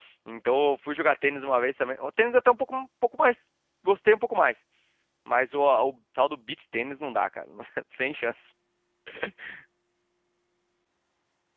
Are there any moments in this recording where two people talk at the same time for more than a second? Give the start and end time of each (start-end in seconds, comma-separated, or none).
none